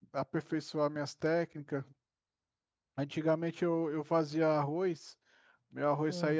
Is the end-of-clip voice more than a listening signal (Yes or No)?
No